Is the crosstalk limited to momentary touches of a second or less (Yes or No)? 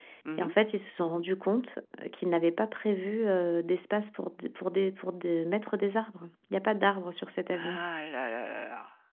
Yes